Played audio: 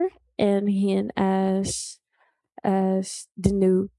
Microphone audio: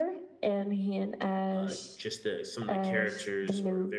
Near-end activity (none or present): present